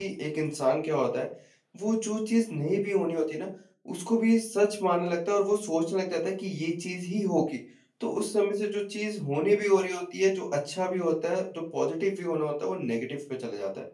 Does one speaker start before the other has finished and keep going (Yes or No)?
No